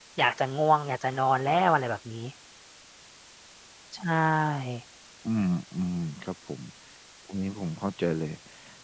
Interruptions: none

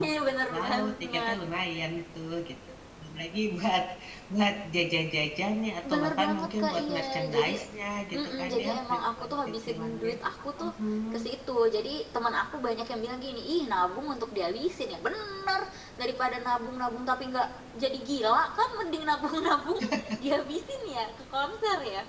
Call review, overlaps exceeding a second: present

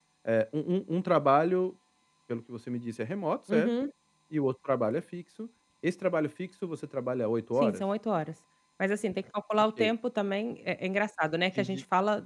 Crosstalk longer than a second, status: none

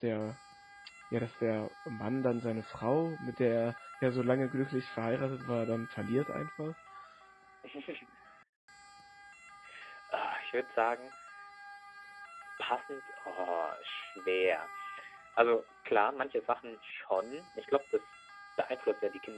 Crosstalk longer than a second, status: none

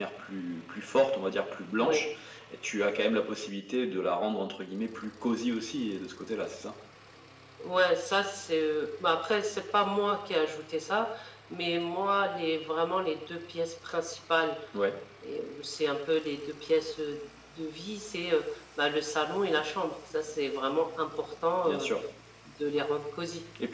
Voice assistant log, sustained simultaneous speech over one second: none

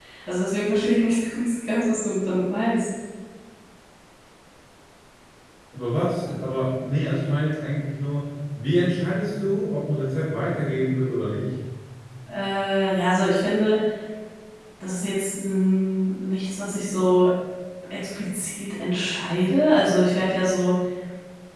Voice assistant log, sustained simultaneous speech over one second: none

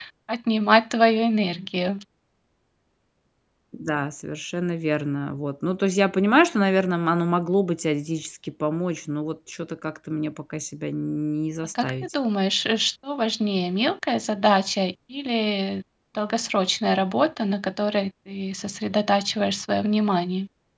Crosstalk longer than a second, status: none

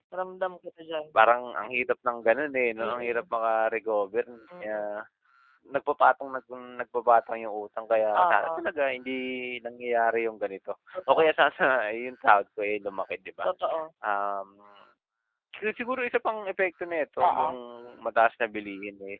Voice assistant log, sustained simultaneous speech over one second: none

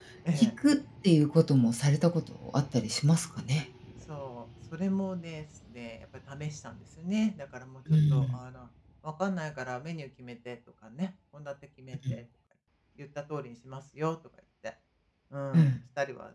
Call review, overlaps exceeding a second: none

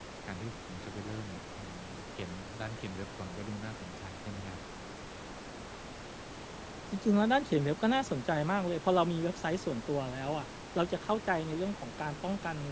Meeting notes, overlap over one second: none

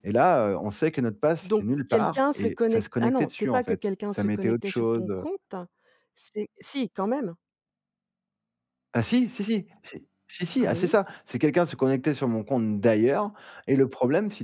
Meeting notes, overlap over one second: present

